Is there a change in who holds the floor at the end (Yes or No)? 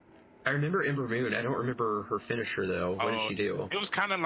Yes